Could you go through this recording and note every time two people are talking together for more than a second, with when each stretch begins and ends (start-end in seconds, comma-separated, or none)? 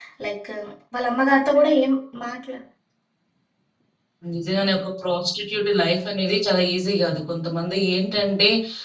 none